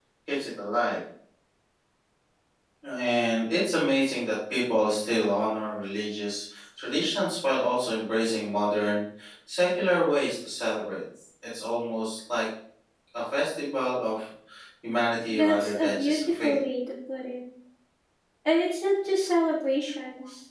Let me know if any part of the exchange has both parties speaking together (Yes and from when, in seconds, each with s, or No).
Yes, from 15.3 s